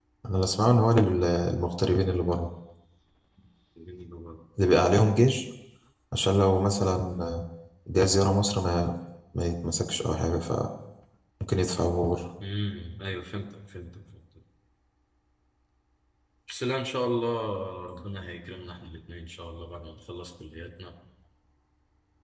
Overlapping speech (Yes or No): No